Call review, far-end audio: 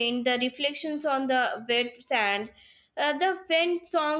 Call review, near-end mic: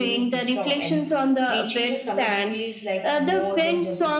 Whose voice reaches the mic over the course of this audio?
both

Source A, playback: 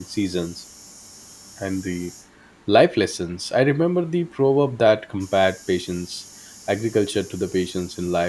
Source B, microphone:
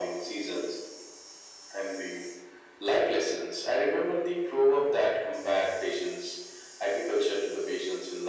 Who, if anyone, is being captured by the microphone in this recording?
echo only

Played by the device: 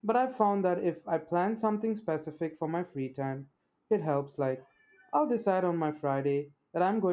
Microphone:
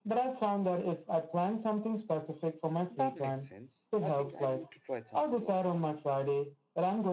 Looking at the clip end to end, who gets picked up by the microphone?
both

